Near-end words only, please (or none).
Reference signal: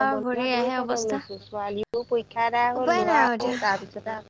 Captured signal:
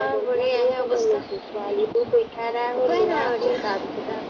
none